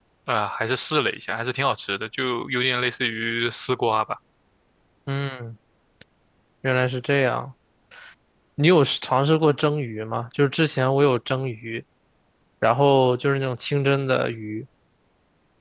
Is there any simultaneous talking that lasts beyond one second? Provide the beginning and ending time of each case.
none

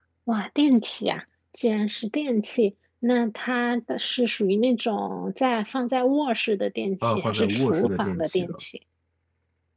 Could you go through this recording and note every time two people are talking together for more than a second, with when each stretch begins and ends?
7.0-8.5

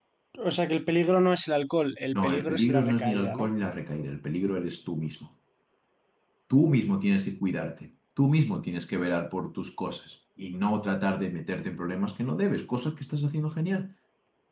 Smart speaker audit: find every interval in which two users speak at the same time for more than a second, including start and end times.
2.2-3.5

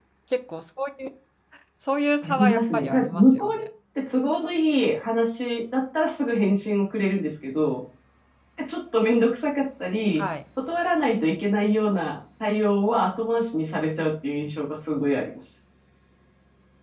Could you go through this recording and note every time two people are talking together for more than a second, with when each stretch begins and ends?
2.3-3.6

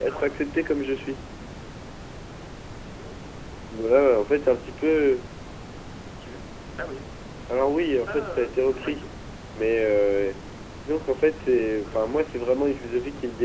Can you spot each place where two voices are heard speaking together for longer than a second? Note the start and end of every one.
7.7-9.0

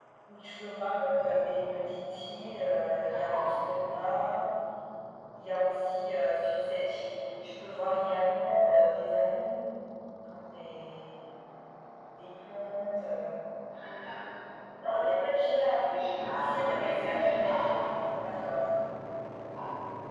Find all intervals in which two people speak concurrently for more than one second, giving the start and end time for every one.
16.4-17.7

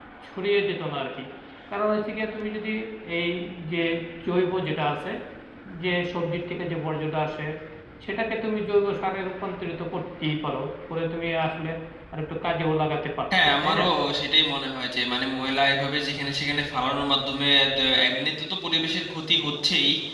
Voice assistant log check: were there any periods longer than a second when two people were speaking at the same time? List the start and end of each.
none

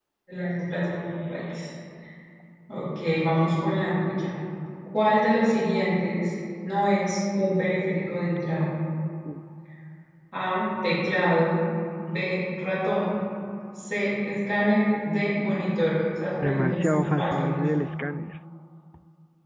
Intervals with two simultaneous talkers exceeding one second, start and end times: 16.4-17.6

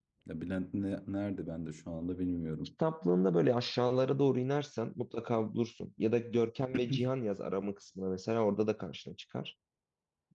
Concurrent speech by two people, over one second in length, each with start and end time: none

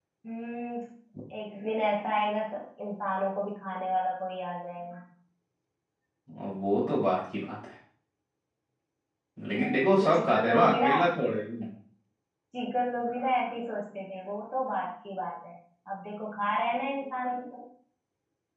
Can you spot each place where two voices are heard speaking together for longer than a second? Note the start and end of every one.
9.6-10.9

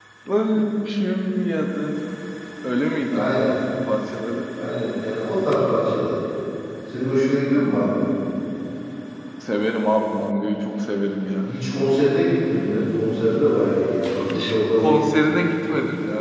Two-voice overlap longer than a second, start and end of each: none

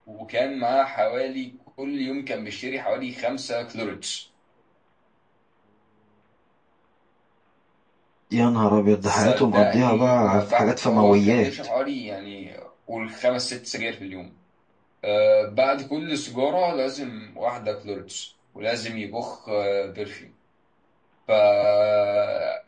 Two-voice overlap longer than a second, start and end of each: 9.0-11.5

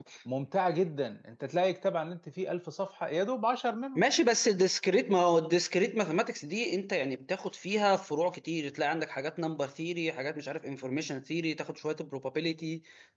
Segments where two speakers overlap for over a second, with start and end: none

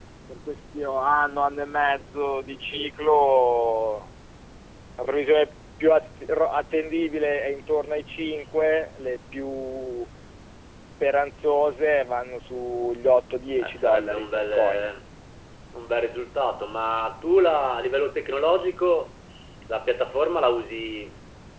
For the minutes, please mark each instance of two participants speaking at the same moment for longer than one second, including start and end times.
13.6-14.9

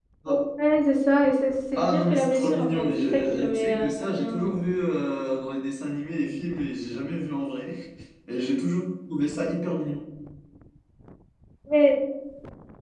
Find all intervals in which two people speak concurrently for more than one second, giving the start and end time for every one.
1.8-4.4

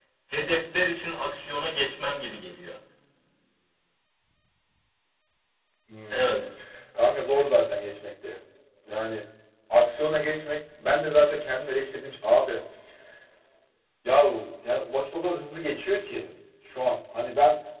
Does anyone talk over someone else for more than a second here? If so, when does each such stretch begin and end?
none

